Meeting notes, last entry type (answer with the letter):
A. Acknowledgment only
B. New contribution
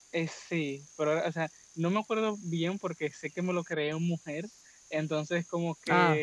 A